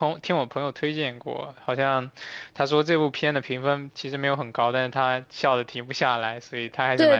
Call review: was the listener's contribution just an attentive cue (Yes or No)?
No